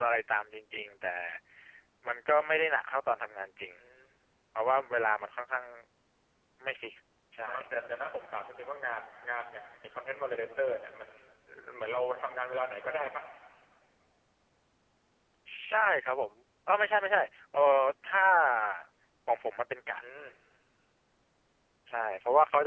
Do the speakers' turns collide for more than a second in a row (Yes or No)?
No